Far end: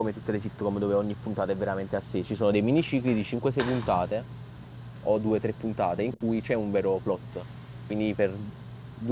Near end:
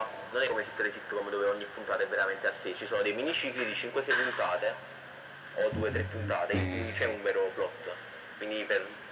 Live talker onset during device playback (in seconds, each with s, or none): 5.7 s